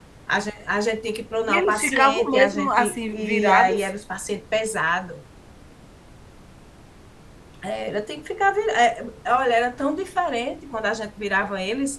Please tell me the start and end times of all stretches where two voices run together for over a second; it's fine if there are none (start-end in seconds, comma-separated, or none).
1.5-3.9